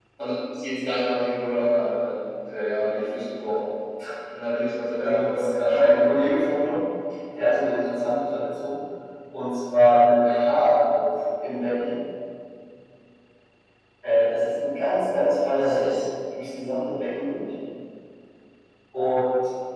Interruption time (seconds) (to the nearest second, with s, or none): 5 s